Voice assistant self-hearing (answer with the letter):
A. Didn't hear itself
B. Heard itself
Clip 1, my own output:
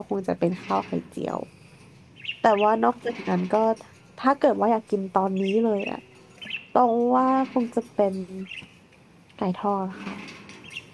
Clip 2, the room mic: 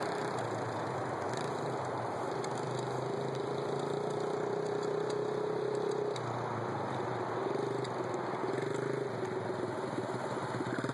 A